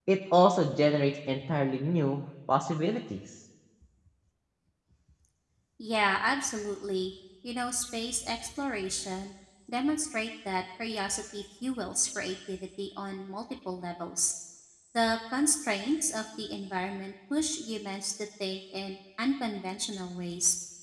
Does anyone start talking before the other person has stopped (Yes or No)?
No